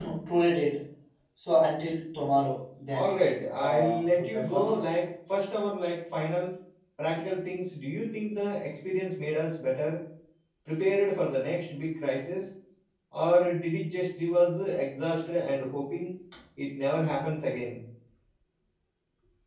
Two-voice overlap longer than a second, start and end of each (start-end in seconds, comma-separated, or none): 3.6-4.8